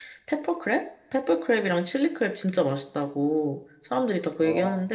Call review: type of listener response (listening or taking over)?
listening